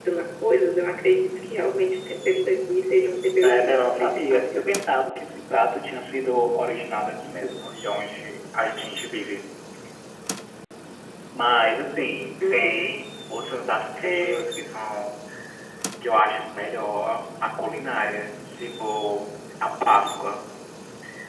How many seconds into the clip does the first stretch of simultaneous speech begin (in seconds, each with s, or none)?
3.4 s